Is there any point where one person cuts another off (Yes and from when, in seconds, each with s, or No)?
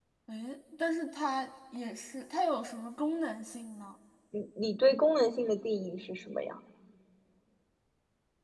No